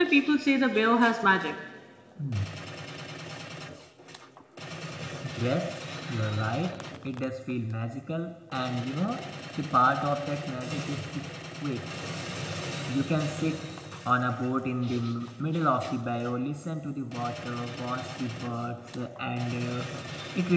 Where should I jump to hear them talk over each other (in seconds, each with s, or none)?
none